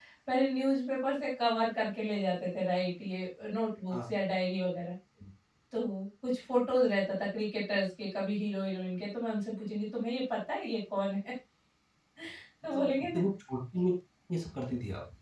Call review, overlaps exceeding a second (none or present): none